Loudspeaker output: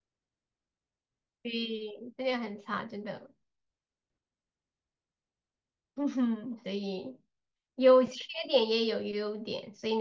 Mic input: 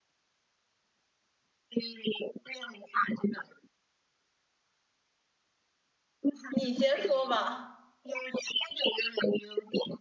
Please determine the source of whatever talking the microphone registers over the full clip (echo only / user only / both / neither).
both